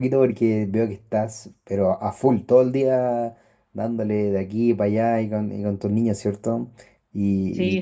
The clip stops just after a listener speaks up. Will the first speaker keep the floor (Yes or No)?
No